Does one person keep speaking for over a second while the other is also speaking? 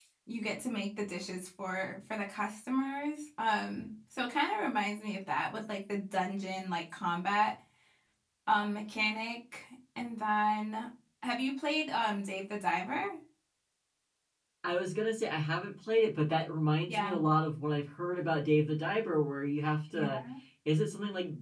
No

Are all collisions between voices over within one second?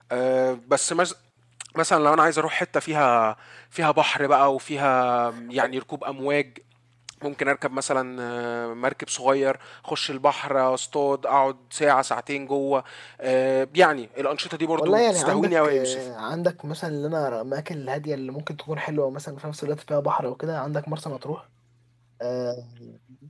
No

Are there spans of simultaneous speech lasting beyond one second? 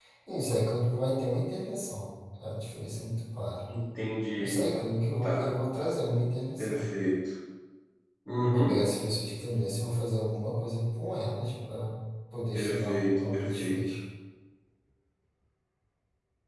Yes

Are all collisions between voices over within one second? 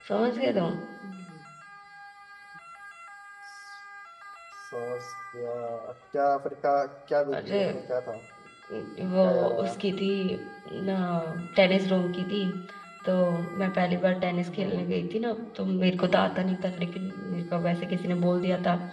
Yes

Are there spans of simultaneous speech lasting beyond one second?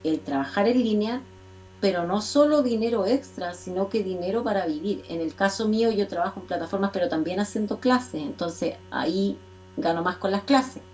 No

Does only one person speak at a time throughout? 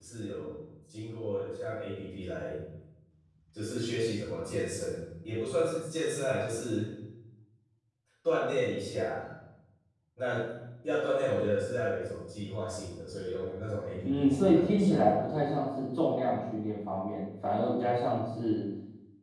No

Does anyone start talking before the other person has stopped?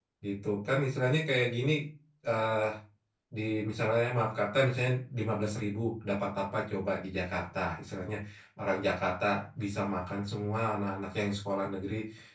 No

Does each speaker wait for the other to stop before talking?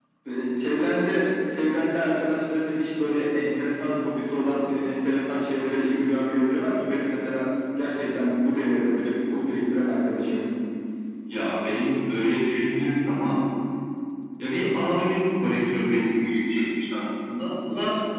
Yes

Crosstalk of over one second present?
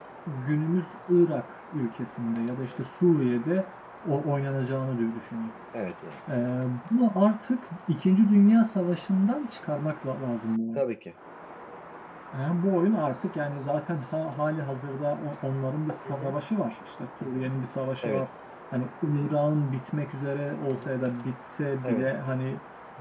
No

